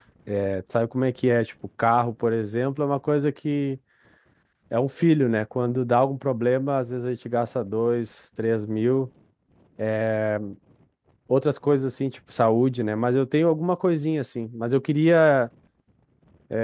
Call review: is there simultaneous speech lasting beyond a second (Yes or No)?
No